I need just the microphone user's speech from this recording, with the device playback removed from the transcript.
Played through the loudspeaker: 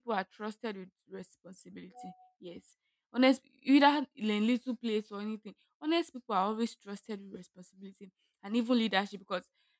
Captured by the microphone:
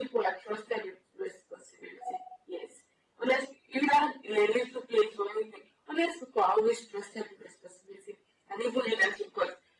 none

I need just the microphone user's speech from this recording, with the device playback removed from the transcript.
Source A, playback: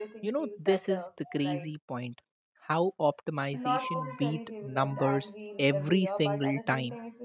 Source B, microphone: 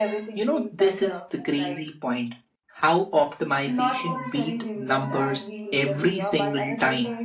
none

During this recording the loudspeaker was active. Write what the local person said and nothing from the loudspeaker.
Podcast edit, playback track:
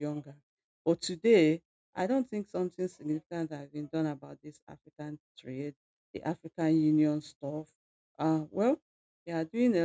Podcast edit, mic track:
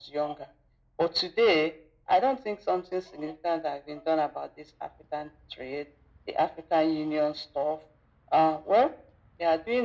none

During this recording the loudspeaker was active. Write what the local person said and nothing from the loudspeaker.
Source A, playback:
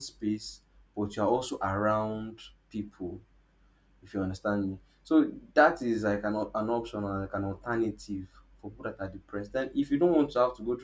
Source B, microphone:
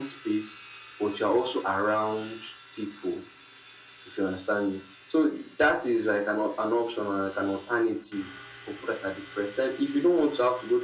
none

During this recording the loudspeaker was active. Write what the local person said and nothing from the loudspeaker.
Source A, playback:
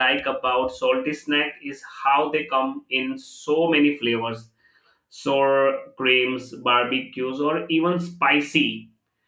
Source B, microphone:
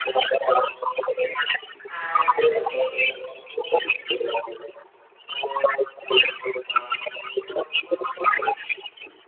and uh, take it

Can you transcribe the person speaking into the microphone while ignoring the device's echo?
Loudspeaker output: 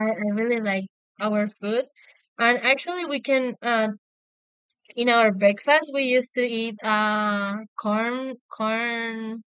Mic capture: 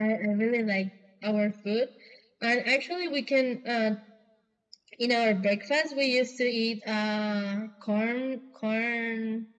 none

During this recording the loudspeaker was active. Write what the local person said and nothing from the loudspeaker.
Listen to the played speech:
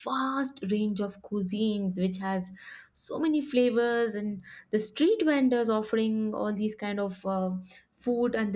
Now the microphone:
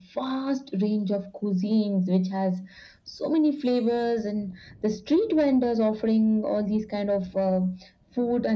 none

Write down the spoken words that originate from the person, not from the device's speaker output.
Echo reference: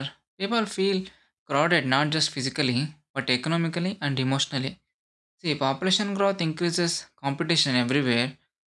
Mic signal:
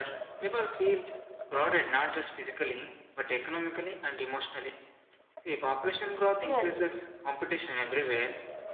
yes

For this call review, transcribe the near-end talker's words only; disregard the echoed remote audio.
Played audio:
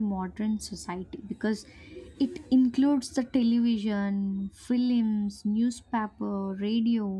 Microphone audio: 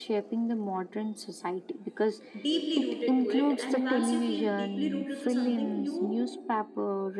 deeply rooted to it and once you feel deeply rooted to something you

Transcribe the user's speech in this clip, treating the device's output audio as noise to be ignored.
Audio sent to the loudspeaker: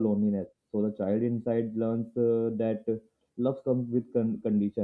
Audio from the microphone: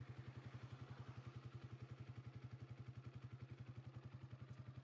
none

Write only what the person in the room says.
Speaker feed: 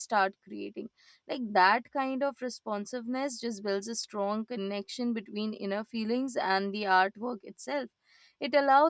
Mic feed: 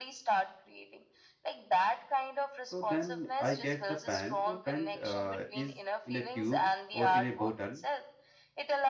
so then i get the pant the pant uh, is in a tube or in a bottle

